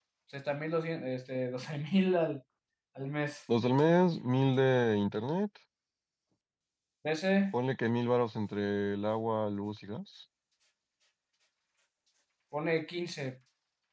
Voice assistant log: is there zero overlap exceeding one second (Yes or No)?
Yes